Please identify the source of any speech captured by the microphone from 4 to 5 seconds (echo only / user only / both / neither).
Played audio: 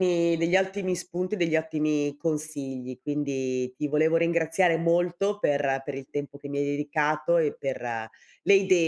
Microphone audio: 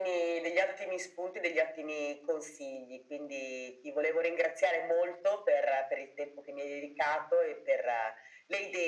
echo only